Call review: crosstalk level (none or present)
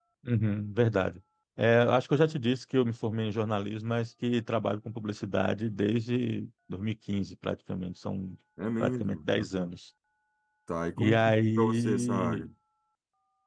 present